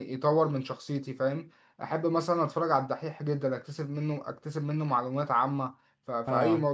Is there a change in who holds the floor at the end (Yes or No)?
No